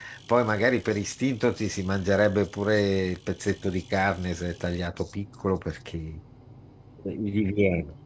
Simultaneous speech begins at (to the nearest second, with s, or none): none